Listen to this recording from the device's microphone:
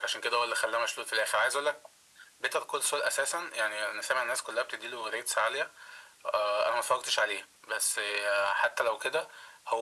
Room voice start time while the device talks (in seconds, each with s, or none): none